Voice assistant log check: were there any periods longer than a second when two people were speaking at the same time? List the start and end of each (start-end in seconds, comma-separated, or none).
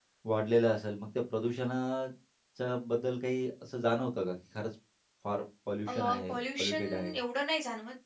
5.9-7.2